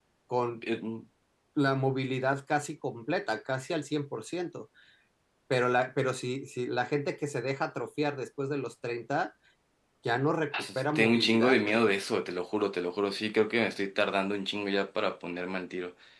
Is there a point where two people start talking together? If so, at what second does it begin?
10.5 s

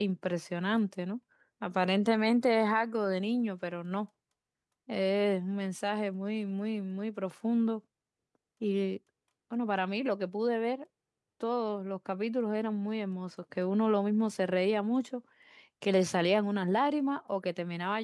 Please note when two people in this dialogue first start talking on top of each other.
none

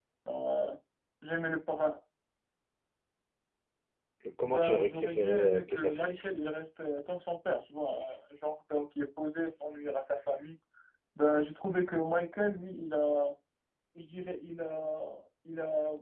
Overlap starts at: 4.4 s

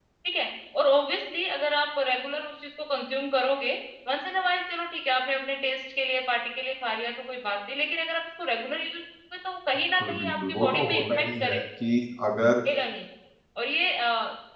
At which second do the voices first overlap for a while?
9.9 s

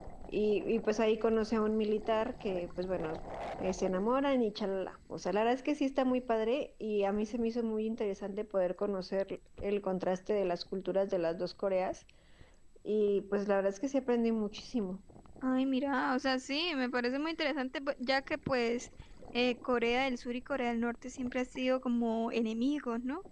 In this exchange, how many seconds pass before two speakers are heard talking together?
none

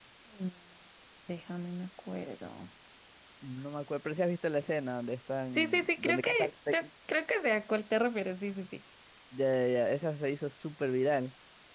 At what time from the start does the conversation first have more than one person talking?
5.5 s

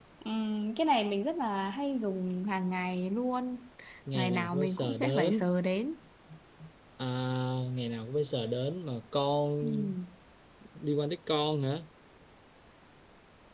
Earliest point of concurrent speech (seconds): 4.1 s

